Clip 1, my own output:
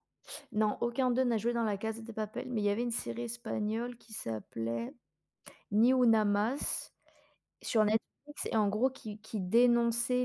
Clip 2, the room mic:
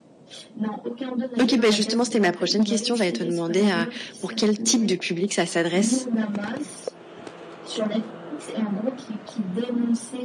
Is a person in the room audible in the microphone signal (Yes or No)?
Yes